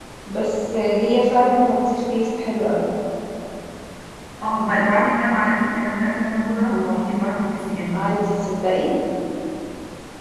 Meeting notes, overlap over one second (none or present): none